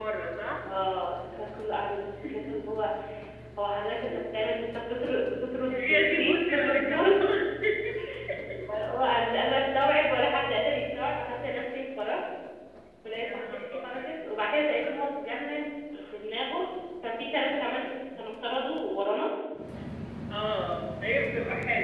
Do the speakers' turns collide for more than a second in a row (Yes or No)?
Yes